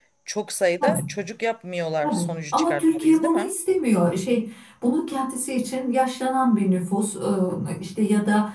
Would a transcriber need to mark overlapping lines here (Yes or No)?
Yes